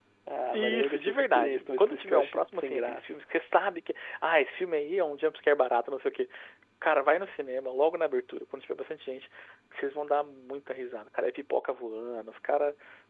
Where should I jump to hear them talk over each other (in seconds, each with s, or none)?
0.5 s